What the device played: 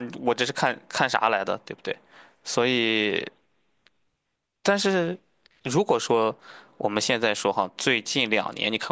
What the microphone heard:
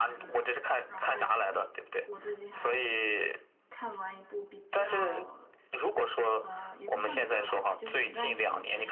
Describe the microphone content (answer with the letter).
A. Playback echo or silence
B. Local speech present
B